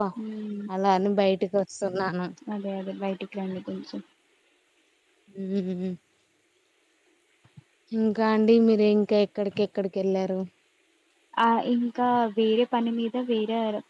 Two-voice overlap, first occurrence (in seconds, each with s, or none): none